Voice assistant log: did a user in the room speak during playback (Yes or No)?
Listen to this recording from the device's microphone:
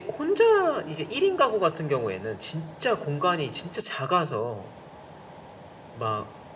No